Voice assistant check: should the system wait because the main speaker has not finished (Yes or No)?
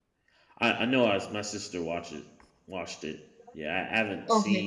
Yes